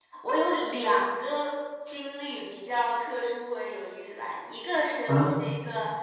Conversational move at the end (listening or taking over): listening